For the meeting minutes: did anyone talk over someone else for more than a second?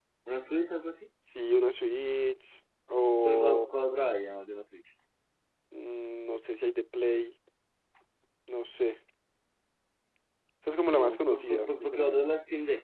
Yes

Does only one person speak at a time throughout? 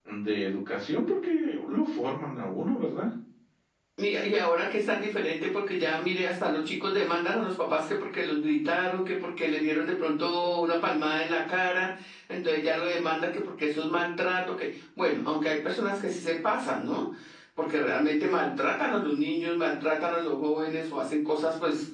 Yes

